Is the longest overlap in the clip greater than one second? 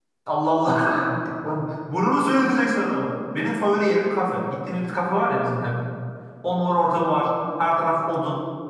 No

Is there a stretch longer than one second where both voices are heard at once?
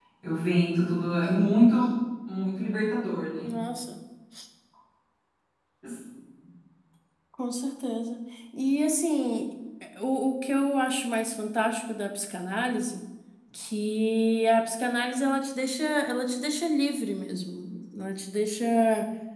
No

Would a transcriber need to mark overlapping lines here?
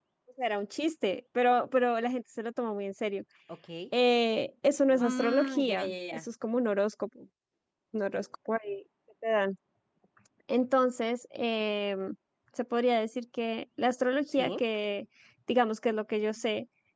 Yes, from 5.0 s

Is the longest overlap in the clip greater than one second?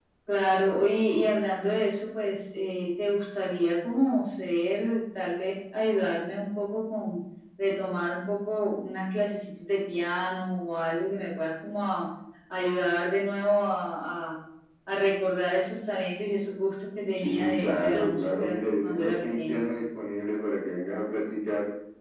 Yes, from 17.2 s

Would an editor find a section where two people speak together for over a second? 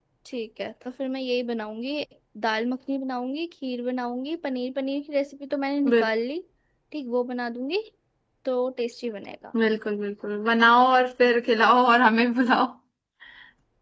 No

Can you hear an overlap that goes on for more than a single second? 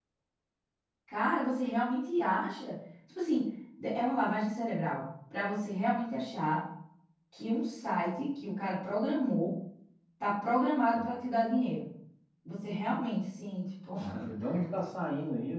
No

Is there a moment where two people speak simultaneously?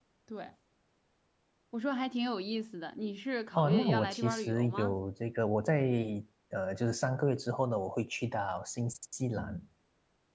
Yes, from 3.5 s

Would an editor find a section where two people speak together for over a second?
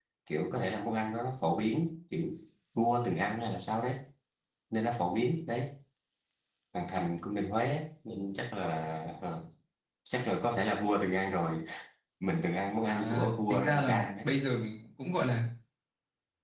Yes, from 12.9 s

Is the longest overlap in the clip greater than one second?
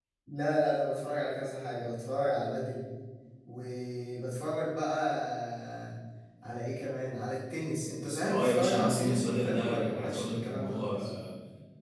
Yes, from 8.3 s

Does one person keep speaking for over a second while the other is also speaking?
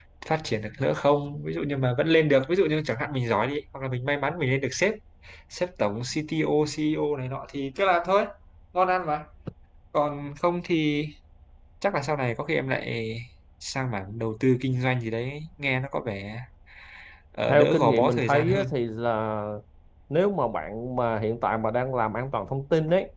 Yes, from 17.5 s

